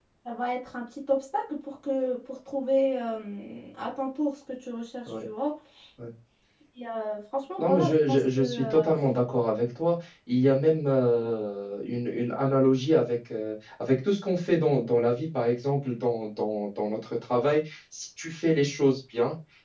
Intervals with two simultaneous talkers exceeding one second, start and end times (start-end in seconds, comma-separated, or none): 7.6-8.9